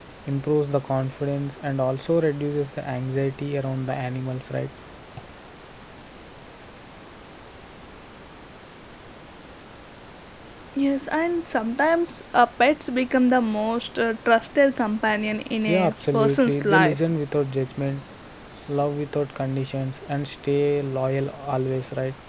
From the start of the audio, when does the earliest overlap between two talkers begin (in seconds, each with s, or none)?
15.6 s